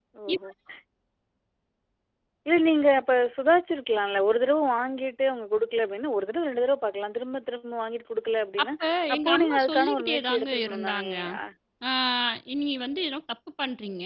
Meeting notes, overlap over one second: present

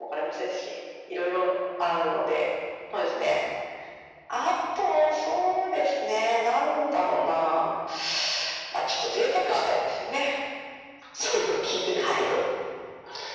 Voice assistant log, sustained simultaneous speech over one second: none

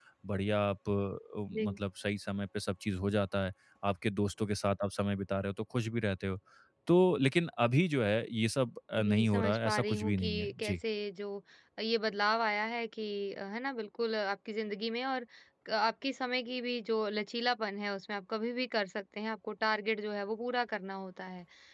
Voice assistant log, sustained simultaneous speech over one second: present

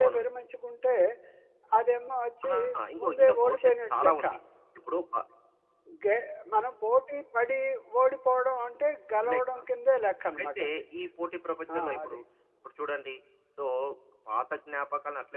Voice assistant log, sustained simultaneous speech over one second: present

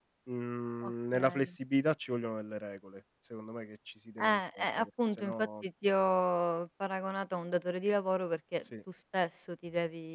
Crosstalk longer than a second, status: present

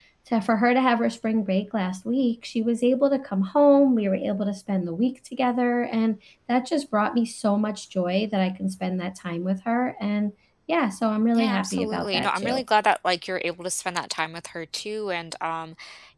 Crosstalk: present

